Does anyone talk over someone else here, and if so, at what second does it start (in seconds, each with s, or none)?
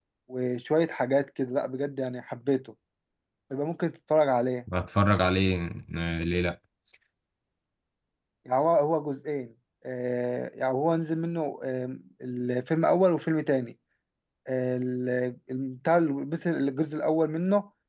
none